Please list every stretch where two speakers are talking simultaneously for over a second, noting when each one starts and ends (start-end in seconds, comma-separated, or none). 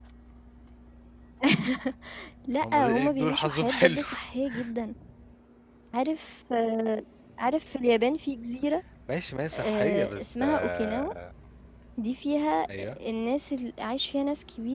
2.6-4.1, 9.5-11.1